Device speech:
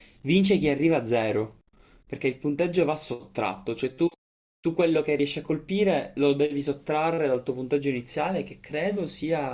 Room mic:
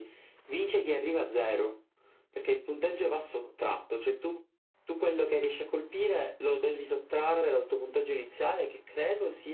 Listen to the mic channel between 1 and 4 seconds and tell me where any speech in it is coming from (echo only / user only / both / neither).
echo only